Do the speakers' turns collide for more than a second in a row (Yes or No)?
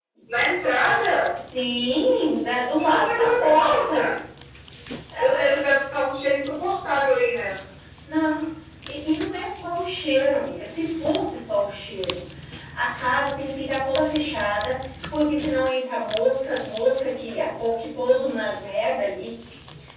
Yes